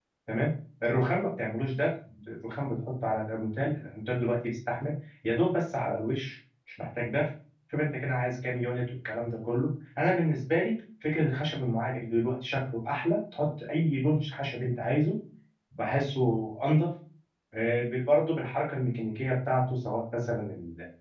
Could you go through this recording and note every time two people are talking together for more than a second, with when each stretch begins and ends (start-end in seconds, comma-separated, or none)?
none